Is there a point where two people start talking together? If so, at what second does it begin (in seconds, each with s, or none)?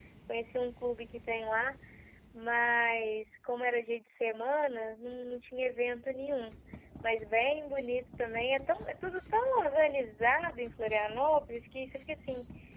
none